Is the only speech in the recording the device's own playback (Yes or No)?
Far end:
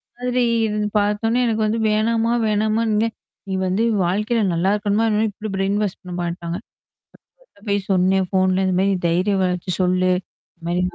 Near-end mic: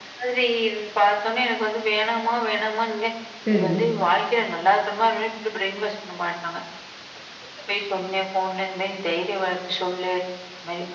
No